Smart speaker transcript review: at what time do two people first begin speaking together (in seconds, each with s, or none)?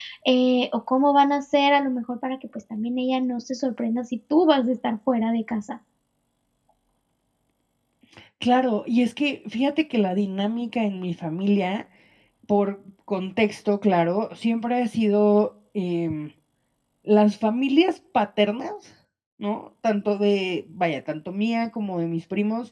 none